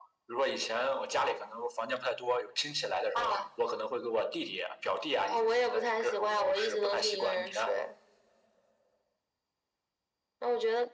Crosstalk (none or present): present